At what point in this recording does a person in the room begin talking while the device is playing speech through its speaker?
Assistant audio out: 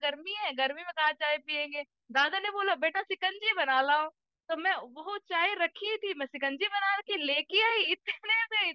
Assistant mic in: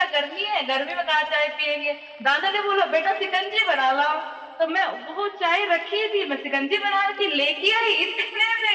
none

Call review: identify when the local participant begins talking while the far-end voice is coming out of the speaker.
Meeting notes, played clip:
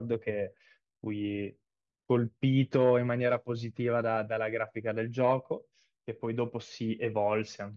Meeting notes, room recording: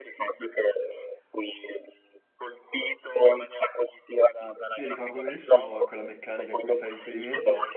4.7 s

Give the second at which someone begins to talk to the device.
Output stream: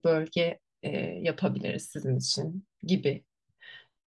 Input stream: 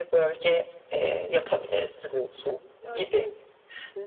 2.8 s

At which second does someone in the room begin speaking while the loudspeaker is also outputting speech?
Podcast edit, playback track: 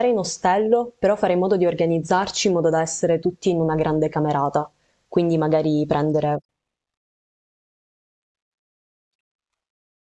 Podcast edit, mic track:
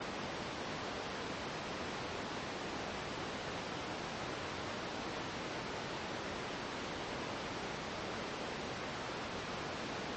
none

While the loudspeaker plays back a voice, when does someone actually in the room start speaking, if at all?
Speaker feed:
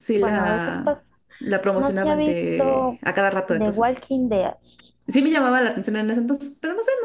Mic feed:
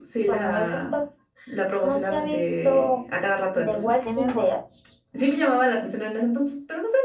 3.8 s

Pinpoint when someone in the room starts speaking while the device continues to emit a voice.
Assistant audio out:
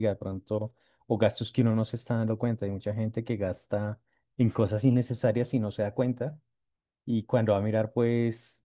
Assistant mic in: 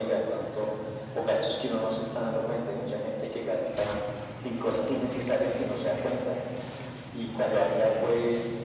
none

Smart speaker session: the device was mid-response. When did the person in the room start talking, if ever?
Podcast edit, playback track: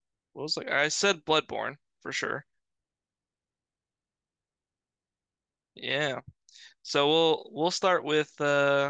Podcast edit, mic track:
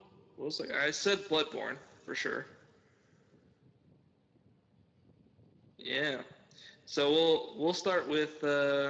none

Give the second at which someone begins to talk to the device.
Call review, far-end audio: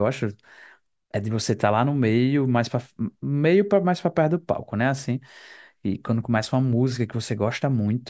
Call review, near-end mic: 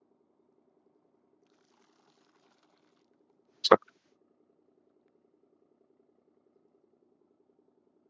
3.6 s

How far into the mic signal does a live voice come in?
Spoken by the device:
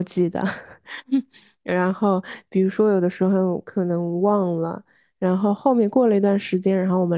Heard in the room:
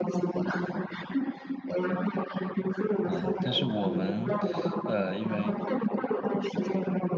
3.1 s

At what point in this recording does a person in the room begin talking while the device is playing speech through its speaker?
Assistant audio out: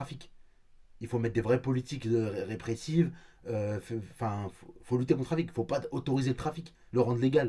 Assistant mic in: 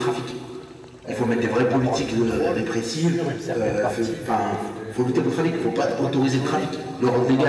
1.1 s

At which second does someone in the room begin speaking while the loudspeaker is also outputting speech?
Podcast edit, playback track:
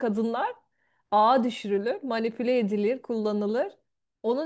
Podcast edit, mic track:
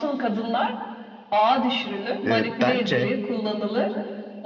2.3 s

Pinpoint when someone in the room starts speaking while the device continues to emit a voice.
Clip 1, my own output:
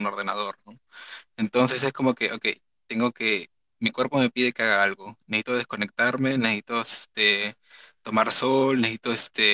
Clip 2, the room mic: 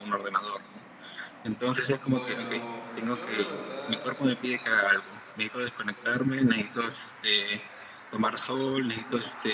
2.0 s

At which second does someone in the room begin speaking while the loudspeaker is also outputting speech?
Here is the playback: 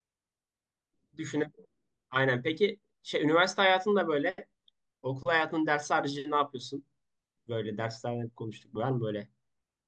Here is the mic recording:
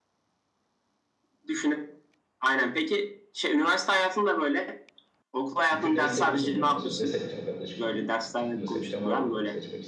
5.6 s

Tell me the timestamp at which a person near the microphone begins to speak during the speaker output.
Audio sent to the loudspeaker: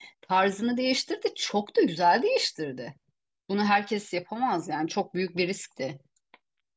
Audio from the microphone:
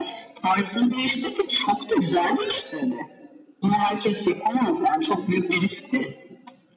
none

